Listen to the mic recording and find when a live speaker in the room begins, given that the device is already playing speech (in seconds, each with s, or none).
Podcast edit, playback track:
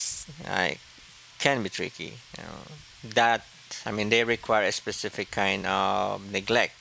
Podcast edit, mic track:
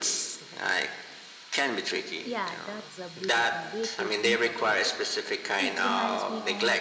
2.3 s